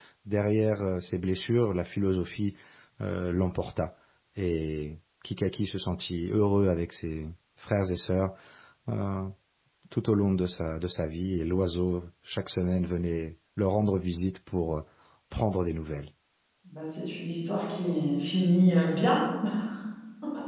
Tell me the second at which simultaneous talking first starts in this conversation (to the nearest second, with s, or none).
none